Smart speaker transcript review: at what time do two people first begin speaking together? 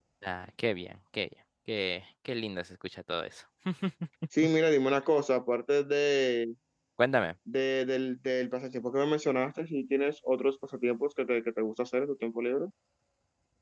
none

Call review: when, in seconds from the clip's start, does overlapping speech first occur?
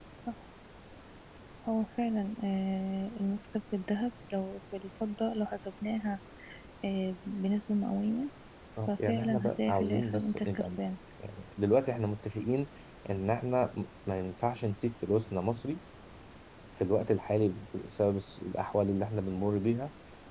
8.9 s

